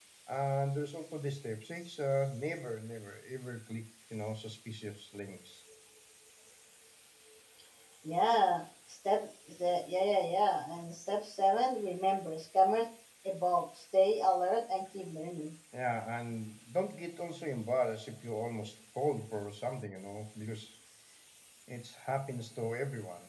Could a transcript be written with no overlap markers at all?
Yes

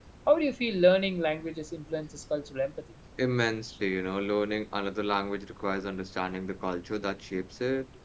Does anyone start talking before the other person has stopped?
No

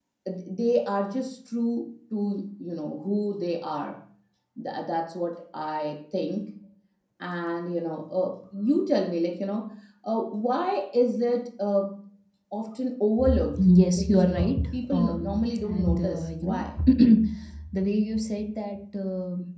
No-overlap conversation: No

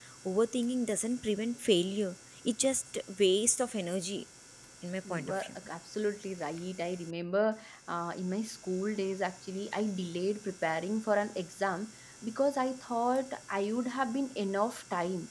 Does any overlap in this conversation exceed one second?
No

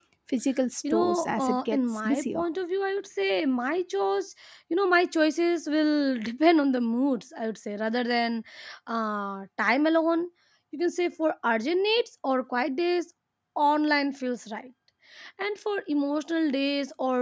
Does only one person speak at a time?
No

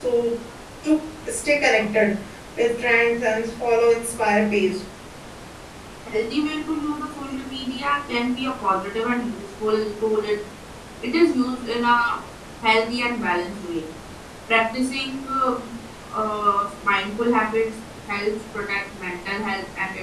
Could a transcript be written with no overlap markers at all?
Yes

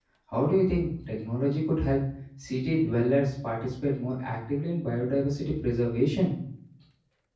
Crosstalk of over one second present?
No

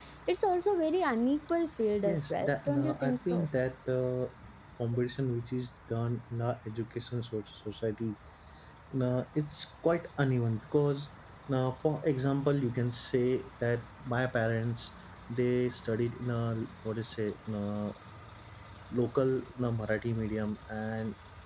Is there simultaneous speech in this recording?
Yes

